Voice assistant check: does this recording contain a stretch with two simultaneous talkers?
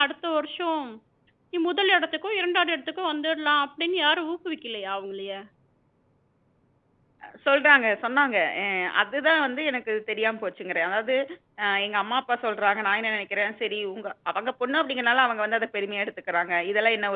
No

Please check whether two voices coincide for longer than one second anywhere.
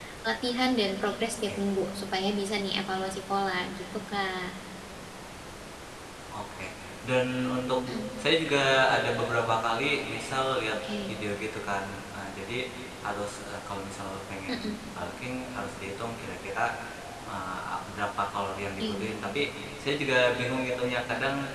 No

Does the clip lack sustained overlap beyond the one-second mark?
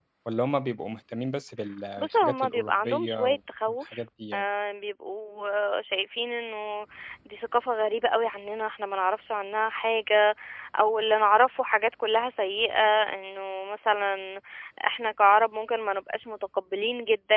No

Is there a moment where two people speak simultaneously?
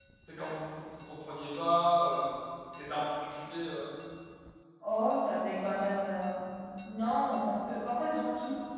No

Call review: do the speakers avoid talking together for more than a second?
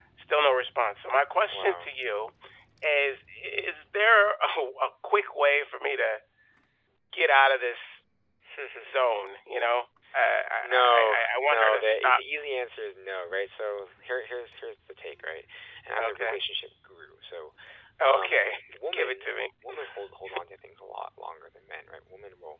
No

